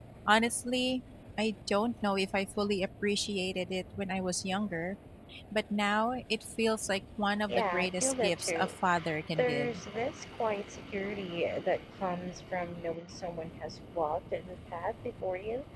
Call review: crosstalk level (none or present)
present